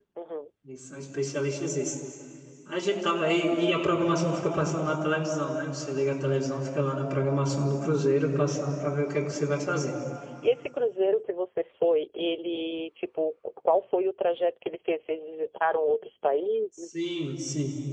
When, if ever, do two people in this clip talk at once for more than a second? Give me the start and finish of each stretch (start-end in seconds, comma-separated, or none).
none